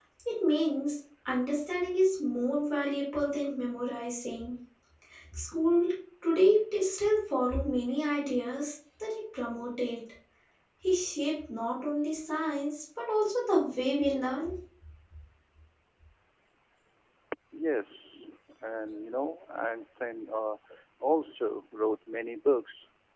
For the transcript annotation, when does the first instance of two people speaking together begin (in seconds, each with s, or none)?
none